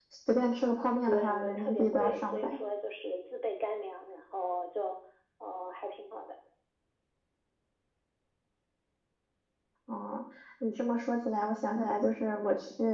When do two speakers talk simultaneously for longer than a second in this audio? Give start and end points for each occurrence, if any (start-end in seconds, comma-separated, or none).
1.0-2.6